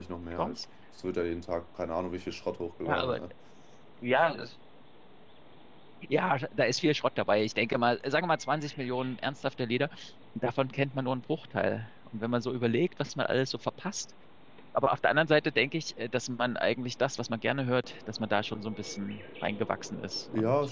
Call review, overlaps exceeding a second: none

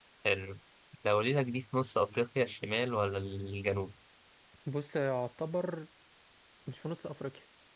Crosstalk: none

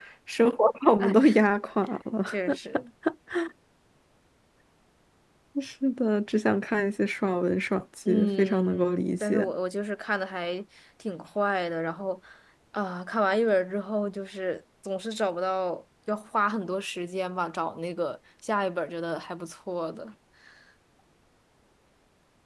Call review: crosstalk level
present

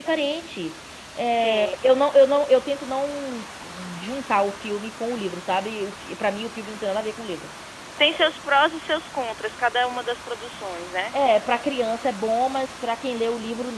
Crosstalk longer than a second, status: none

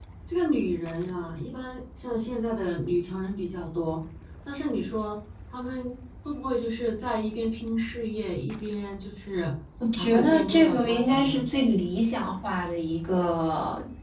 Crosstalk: present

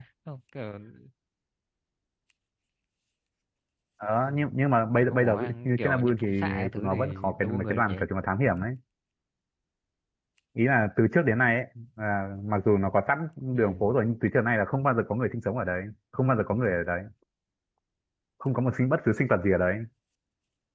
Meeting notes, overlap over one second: present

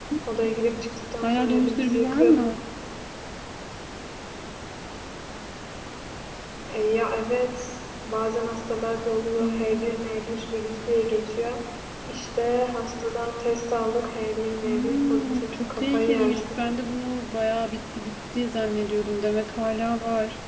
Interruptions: present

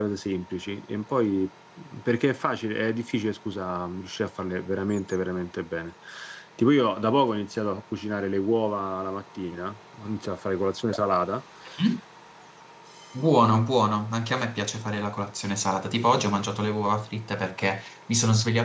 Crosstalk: none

